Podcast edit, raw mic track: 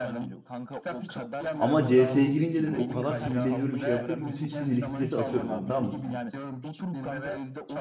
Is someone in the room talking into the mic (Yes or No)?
Yes